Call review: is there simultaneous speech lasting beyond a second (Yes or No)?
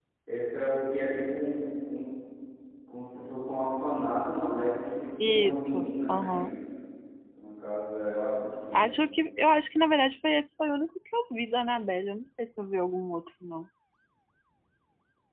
Yes